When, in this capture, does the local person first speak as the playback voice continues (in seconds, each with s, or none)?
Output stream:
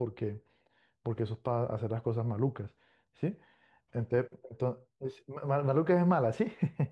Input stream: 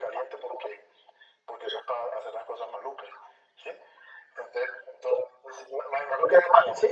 none